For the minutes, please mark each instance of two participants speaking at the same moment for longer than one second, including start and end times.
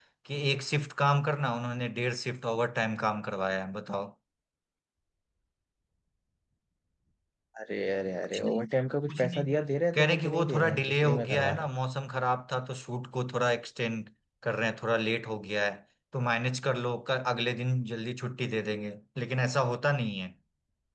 9.9-11.7

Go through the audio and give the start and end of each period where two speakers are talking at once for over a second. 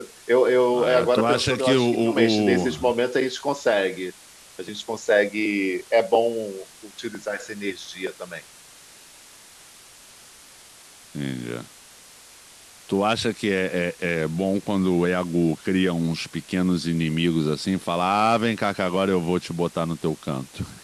0.7-2.9

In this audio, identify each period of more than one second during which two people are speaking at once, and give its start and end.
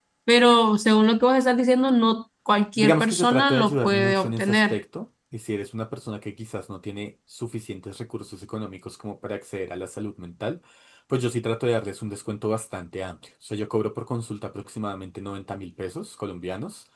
2.8-4.8

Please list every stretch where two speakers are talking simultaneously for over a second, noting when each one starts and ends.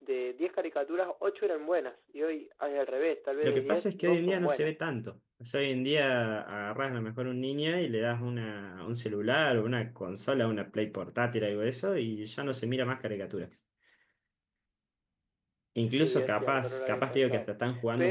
3.4-4.7, 16.0-17.5

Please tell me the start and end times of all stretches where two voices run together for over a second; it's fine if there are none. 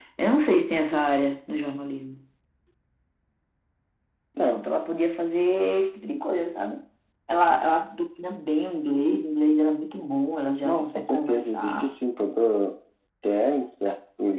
10.6-11.9

